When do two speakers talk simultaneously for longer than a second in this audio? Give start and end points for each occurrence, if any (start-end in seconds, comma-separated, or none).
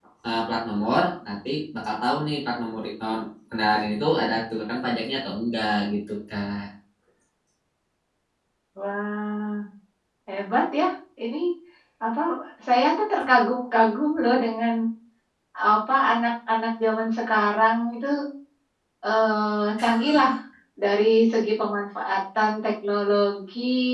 none